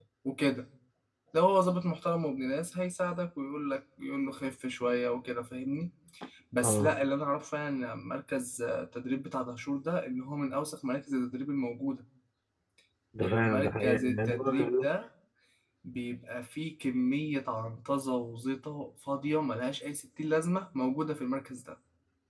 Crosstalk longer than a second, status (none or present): present